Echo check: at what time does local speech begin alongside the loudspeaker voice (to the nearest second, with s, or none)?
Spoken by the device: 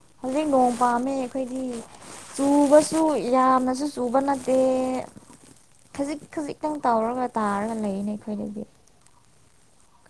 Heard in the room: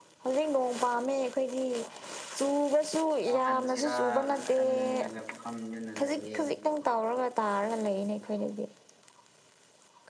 3 s